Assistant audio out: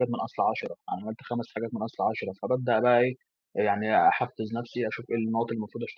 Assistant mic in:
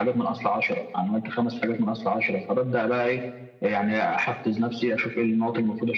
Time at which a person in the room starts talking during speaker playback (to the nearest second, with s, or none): none